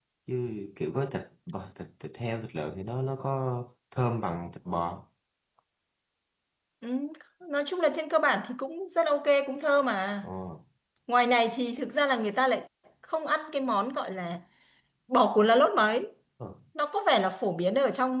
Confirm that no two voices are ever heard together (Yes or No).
Yes